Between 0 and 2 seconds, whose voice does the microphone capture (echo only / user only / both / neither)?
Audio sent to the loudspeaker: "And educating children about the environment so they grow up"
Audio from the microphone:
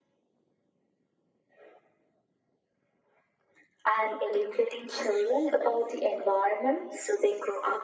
neither